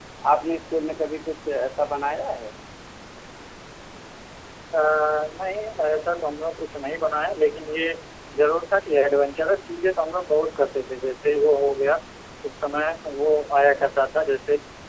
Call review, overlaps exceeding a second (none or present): none